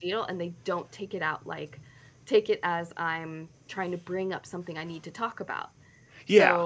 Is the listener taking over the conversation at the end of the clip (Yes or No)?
Yes